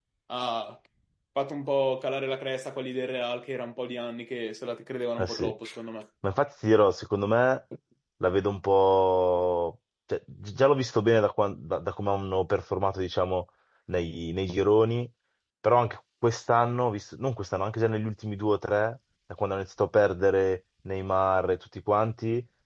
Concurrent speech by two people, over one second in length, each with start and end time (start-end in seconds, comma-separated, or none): none